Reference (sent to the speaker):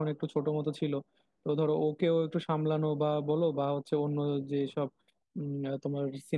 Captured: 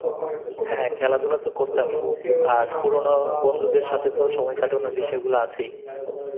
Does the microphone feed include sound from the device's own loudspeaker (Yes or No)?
Yes